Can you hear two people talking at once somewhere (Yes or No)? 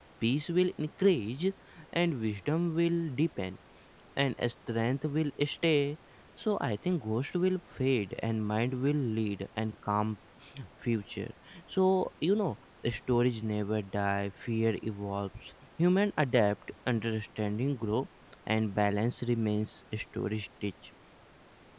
No